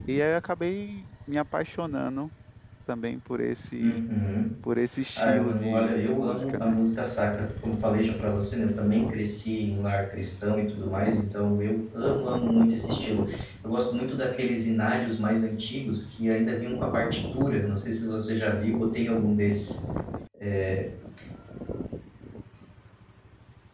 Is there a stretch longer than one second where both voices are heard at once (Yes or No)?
Yes